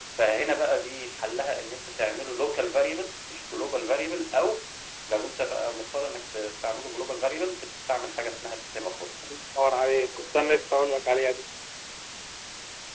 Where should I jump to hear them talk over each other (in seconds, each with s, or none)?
none